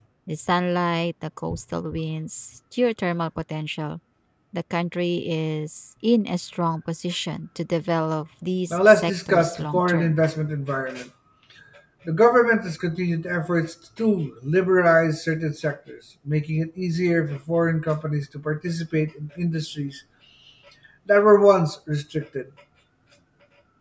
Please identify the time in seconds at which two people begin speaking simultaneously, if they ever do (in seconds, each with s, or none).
8.7 s